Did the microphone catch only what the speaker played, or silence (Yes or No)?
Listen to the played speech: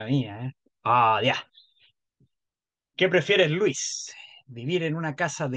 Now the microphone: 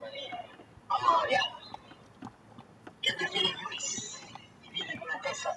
Yes